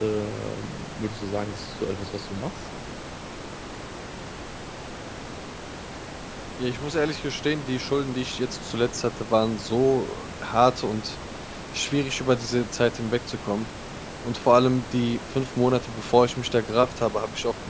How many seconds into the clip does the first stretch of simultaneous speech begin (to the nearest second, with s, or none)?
none